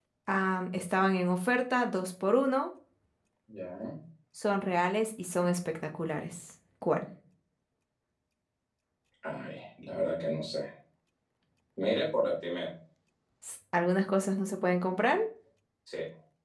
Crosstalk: none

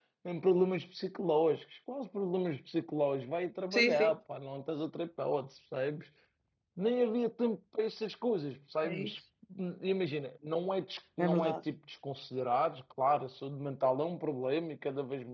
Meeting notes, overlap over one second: none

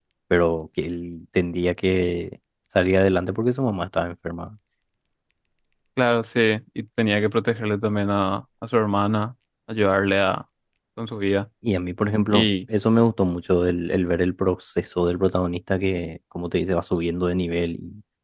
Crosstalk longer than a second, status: none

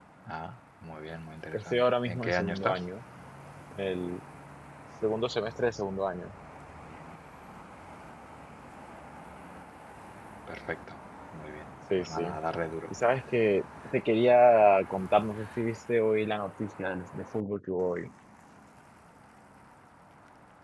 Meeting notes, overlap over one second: present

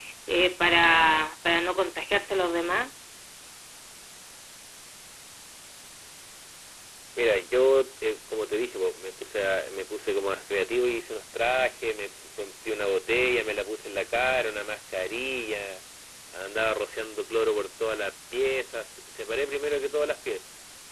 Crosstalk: none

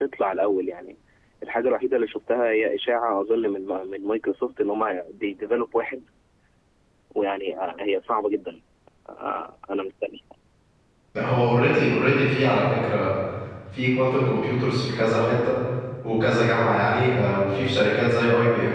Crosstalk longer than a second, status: none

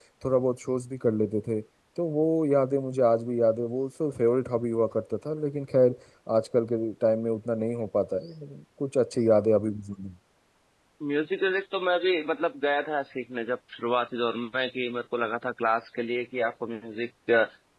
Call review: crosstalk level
none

